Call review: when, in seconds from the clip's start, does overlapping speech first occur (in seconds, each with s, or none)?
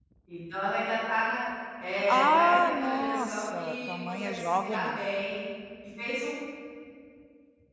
1.9 s